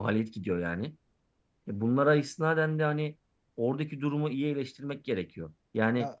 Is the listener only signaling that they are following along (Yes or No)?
Yes